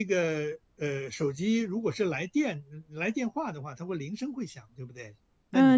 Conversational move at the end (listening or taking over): taking over